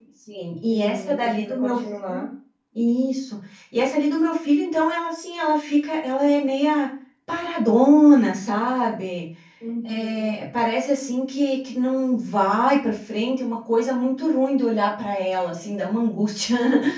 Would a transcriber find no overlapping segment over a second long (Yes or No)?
No